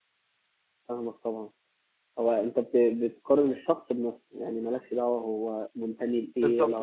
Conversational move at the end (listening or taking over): taking over